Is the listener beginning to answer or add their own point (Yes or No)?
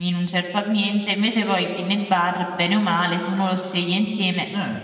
Yes